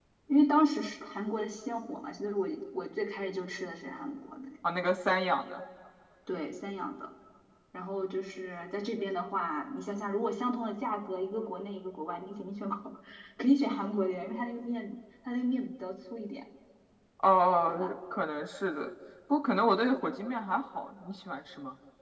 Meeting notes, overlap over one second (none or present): none